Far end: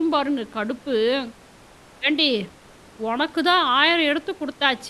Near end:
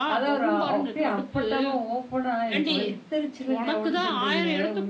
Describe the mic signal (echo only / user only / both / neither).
both